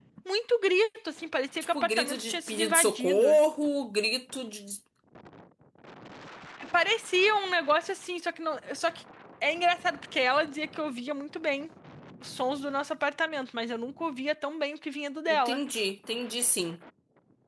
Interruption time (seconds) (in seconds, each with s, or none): 1.7 s